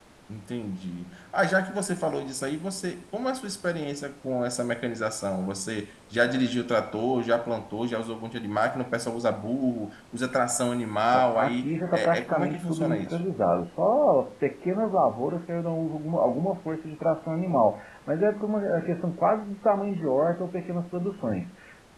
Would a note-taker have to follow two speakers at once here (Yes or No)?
Yes